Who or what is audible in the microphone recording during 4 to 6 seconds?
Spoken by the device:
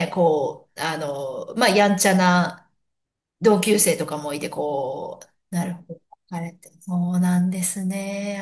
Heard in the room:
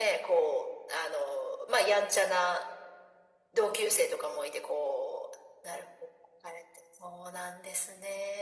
echo only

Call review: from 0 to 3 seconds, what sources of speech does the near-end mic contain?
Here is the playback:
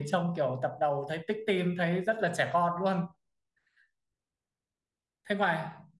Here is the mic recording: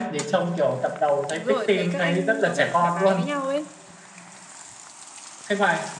both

